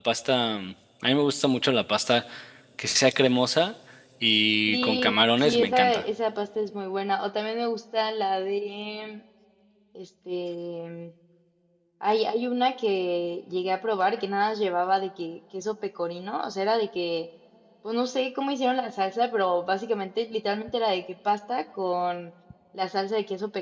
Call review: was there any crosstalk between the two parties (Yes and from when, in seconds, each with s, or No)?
Yes, from 4.7 s